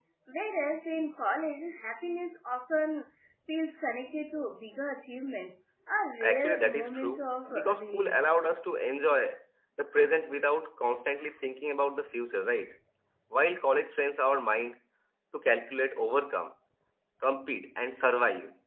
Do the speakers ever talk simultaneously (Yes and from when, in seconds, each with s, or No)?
Yes, from 6.2 s